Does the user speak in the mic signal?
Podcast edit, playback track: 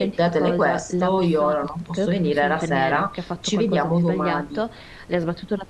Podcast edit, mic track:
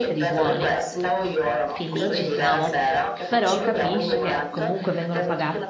Yes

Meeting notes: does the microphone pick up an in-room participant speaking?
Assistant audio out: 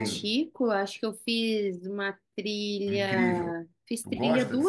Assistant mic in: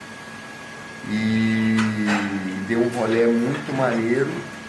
Yes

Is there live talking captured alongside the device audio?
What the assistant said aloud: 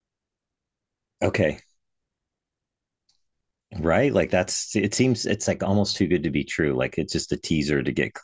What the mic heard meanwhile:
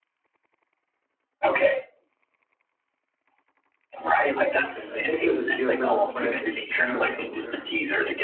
Yes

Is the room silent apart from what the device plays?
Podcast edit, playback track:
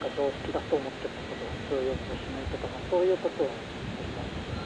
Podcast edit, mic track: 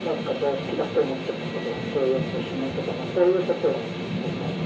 Yes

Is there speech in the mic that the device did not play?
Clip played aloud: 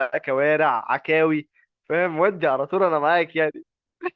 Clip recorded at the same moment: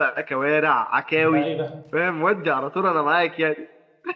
Yes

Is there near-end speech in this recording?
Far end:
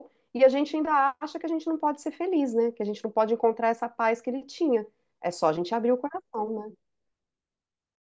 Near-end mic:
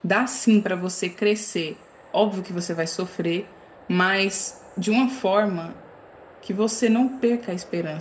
Yes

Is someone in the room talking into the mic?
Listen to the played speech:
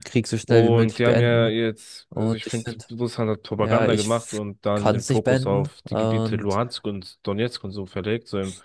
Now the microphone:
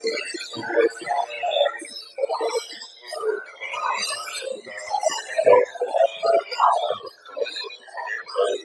No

